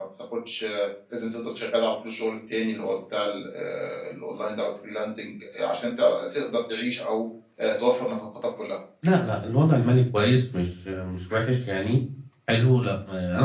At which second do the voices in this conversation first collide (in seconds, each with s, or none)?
none